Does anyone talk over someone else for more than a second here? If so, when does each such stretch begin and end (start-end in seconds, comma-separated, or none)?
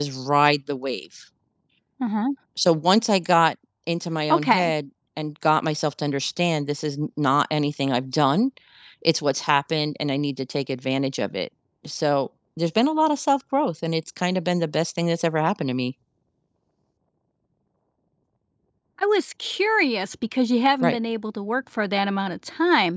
none